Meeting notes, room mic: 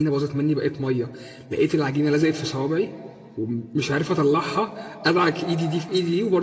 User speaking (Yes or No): Yes